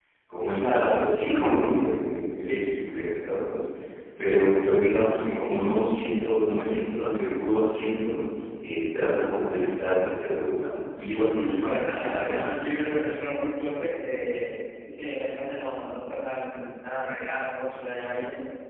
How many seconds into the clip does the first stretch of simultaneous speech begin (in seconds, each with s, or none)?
11.2 s